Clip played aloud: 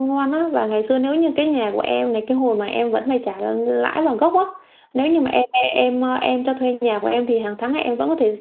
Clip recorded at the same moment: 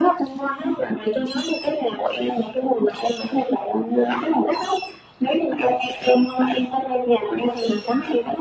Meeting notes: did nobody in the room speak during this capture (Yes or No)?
Yes